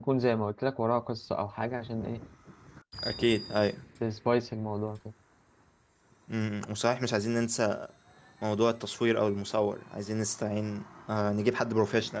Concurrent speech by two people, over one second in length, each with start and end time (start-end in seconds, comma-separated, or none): none